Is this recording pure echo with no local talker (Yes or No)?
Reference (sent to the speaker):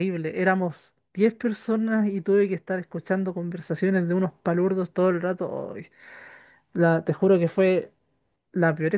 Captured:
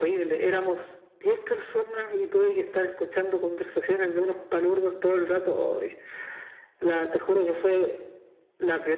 Yes